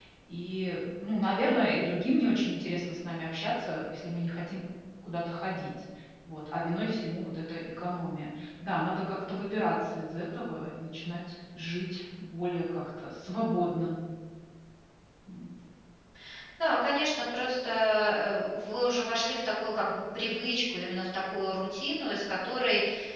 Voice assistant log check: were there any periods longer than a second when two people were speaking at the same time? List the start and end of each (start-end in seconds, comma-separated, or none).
none